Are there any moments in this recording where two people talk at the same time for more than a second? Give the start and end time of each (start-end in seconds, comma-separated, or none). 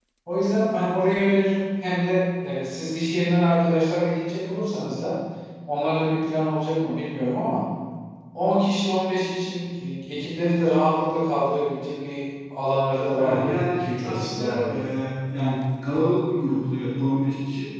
13.1-14.8